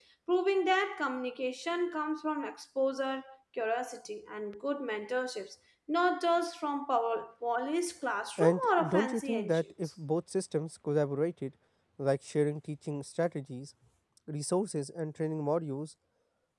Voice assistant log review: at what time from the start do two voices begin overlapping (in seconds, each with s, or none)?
8.4 s